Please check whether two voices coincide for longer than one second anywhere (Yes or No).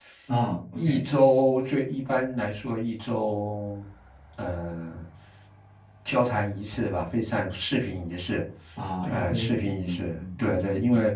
Yes